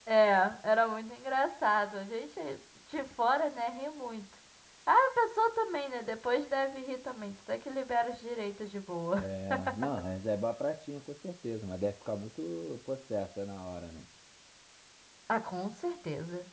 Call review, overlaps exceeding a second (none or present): none